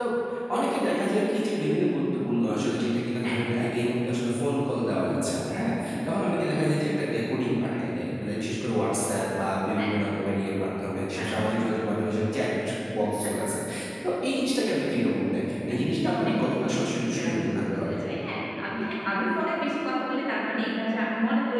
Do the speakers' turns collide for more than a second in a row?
Yes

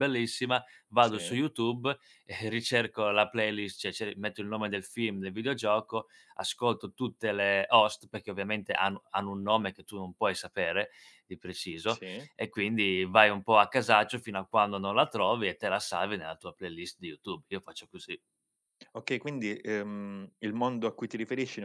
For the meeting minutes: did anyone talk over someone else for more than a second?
No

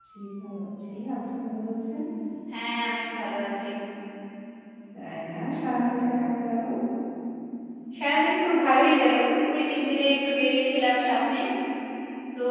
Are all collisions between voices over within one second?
Yes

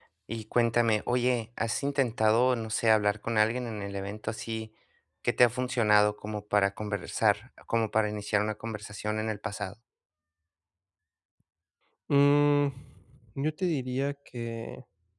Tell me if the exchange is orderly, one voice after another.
Yes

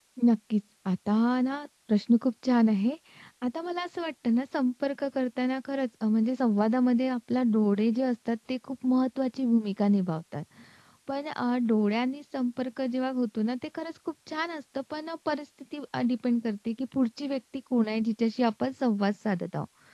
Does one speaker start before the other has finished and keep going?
No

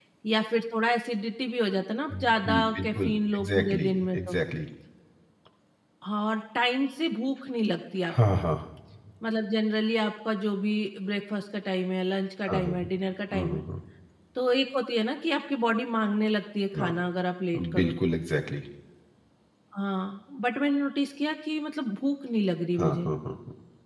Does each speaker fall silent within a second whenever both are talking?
No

